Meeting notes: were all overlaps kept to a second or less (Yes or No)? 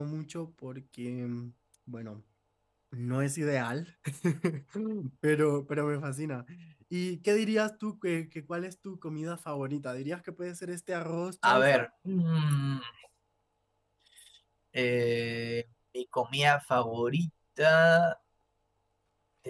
Yes